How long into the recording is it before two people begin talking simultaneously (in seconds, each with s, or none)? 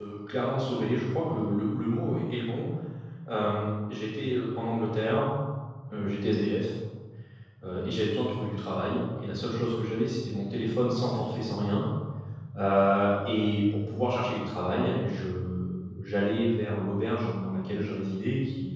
none